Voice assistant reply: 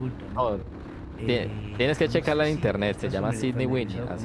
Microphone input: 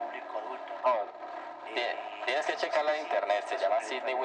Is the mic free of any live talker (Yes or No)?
Yes